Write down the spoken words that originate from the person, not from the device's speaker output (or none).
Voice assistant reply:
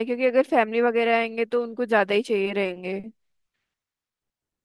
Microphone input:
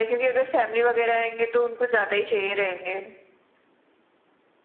none